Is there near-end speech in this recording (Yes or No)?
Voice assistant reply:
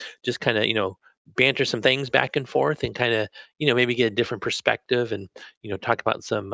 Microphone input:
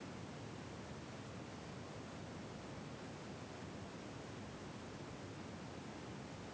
No